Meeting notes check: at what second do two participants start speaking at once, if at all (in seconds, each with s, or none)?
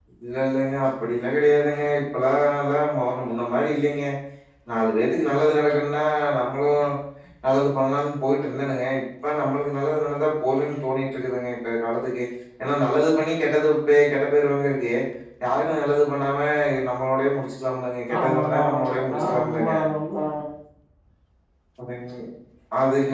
18.1 s